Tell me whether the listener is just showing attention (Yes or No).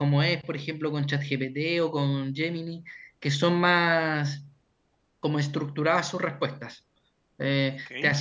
Yes